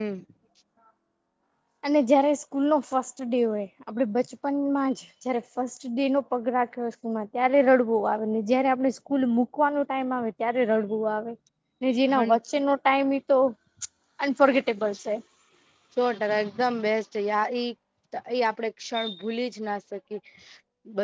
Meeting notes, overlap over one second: none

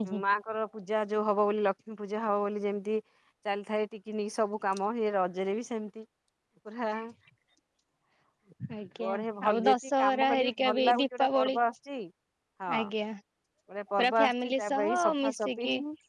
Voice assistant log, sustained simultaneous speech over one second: present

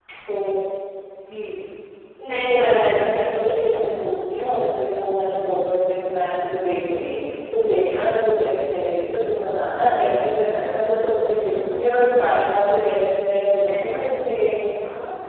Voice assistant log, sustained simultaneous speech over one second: present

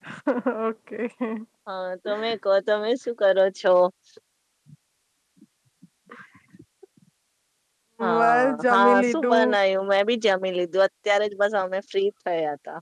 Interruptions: present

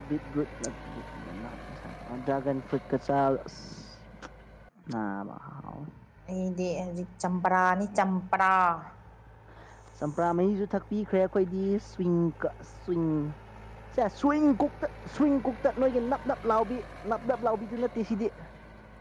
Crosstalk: none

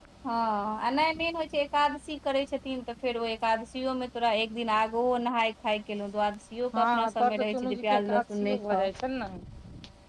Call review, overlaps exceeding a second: present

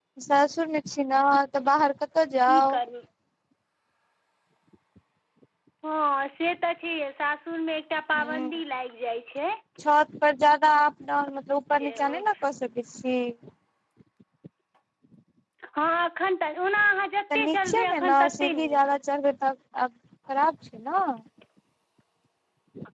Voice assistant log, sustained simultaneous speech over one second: present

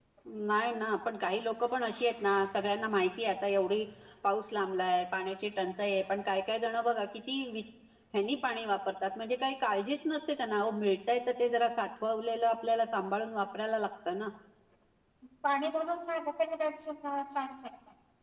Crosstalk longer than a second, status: none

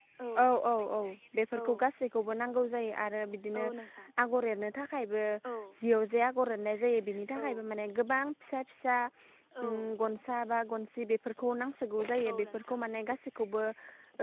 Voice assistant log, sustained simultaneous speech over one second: none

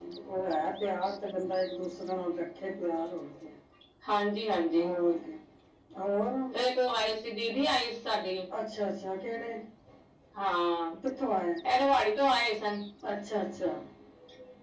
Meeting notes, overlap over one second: none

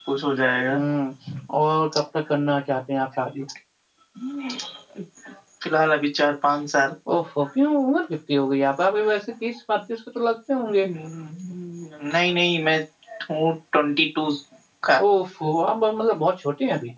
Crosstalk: none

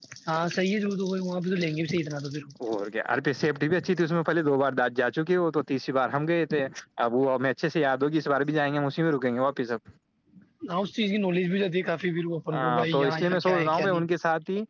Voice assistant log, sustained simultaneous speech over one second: present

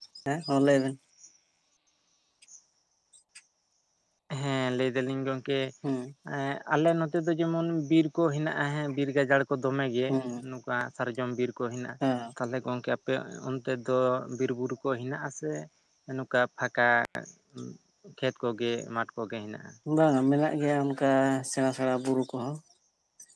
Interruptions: none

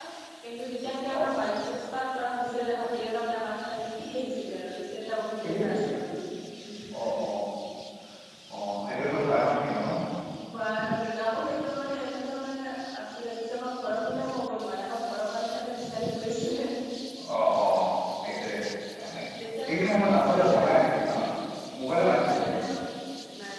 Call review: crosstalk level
present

